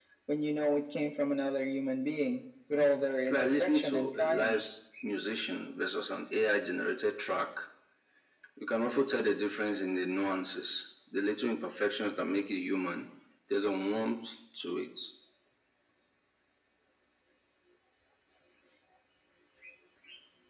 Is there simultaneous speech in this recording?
Yes, from 3.2 s

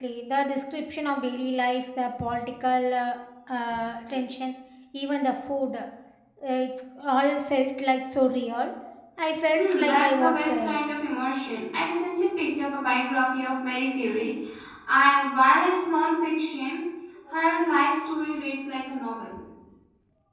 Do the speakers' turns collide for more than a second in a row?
Yes, from 9.6 s

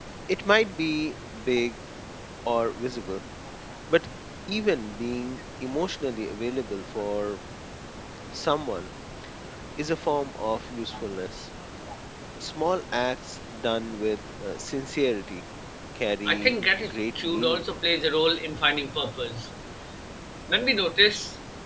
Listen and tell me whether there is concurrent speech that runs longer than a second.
Yes, from 16.2 s

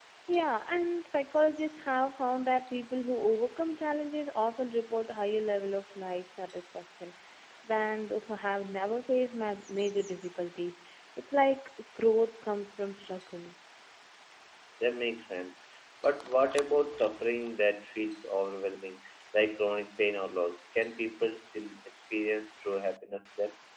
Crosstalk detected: No

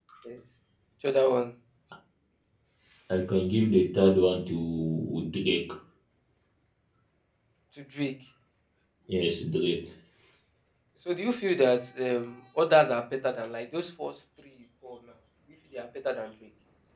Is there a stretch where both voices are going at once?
No

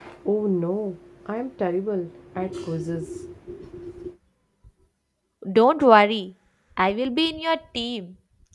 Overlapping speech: No

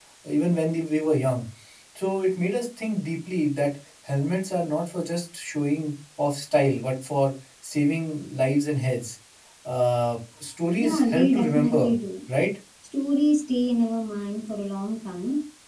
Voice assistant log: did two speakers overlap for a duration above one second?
Yes, from 10.8 s

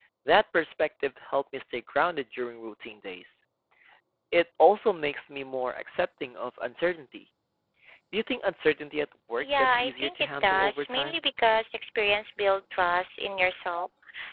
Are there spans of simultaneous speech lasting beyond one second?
Yes, from 9.4 s

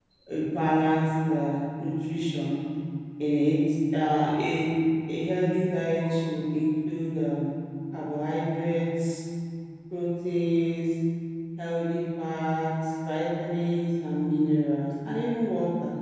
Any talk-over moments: No

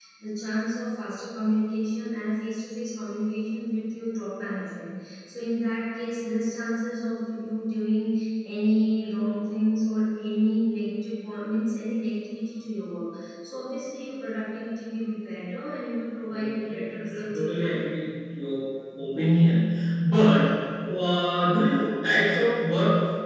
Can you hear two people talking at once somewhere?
Yes, from 16.3 s

